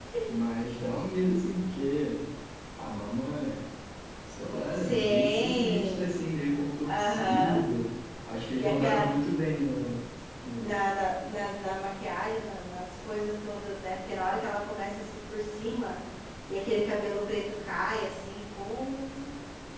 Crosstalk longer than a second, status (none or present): present